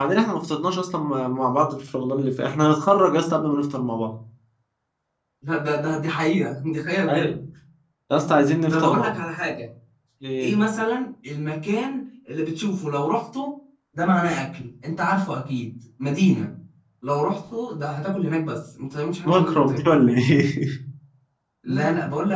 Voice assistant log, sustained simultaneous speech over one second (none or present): none